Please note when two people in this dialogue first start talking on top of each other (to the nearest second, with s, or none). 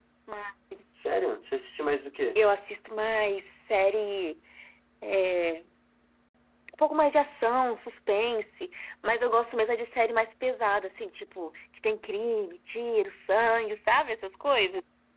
none